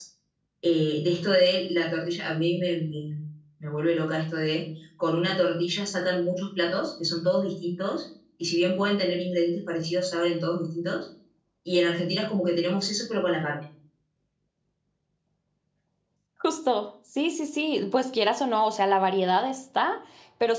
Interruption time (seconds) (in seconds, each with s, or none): none